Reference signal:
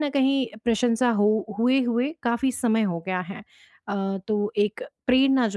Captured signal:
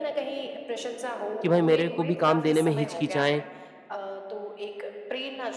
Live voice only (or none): कि भाई मेरे को भी काम देने में हिचकिचाएँ।